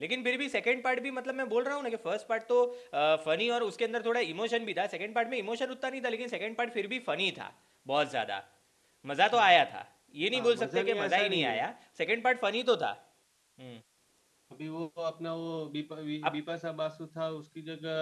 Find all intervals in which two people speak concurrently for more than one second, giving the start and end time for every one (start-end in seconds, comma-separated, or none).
10.3-11.7